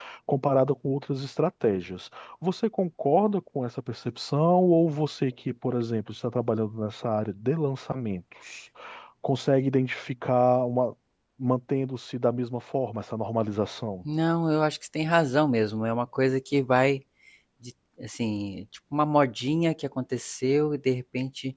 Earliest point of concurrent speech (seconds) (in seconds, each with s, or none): none